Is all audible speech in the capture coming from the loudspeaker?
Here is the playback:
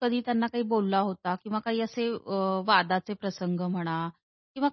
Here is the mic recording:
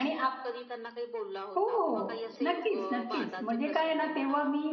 No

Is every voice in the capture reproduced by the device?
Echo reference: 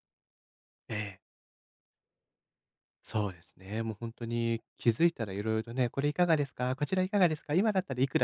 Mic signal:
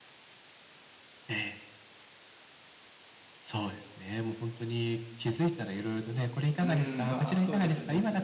No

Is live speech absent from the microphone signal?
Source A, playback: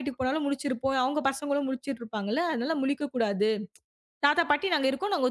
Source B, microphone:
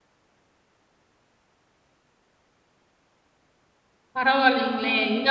No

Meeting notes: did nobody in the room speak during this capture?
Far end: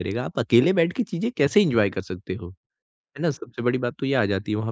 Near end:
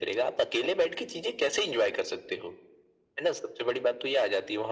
Yes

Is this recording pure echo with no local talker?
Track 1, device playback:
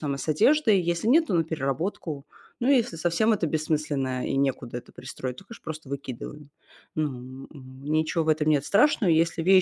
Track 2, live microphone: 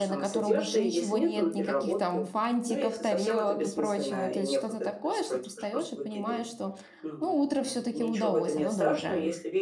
No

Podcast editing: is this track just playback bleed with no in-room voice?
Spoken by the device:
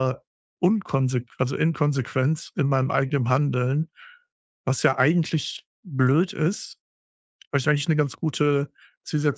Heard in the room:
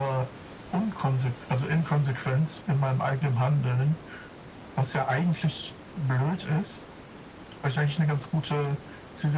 Yes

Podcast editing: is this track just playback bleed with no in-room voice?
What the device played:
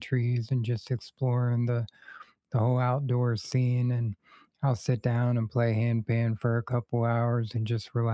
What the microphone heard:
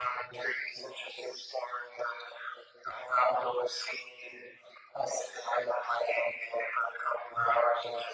Yes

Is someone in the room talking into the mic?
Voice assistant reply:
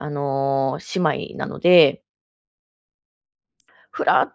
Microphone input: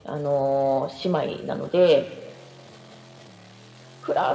No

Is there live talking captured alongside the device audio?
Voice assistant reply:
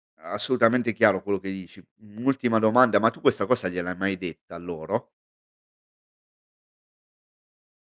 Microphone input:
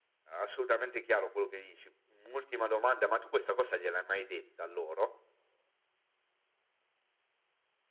No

